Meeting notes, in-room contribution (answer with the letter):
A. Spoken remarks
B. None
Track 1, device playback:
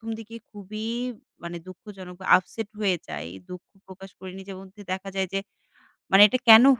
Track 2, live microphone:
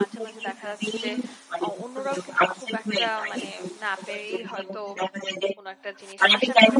A